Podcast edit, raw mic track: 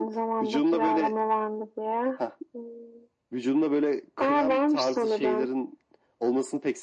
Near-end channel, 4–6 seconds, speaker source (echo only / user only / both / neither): echo only